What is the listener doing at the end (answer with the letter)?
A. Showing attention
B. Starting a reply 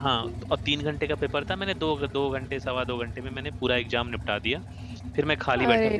A